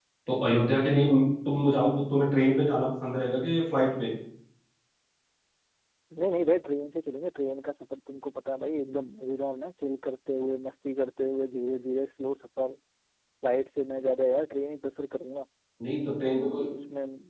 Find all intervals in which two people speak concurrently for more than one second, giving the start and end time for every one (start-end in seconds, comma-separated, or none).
none